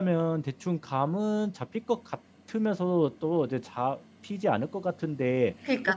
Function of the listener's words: taking over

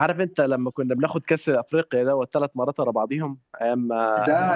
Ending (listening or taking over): taking over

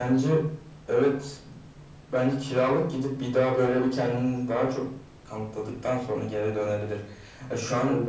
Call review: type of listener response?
listening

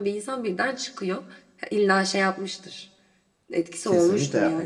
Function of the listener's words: taking over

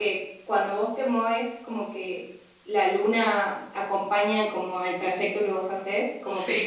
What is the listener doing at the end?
listening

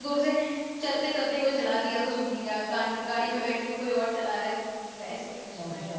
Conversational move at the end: taking over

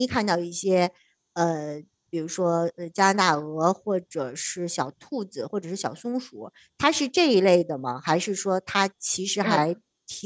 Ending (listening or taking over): listening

